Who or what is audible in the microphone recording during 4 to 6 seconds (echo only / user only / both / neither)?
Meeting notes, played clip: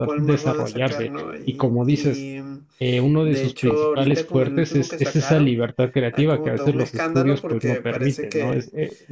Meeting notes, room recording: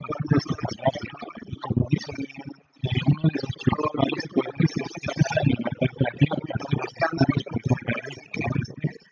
echo only